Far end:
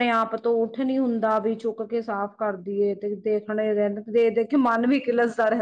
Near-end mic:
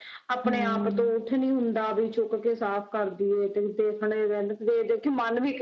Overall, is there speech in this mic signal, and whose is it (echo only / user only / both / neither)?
both